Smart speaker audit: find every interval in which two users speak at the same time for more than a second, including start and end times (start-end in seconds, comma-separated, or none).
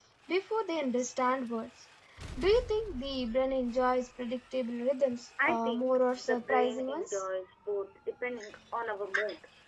5.5-7.2